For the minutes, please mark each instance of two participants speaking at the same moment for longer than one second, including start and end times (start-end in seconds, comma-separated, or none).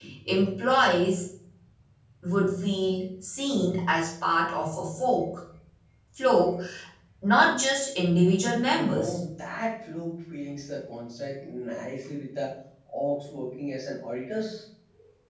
none